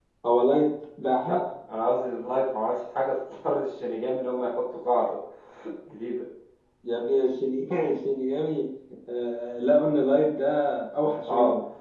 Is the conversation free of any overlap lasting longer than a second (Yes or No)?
Yes